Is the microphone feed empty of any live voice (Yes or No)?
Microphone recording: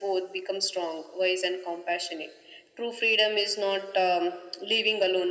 Yes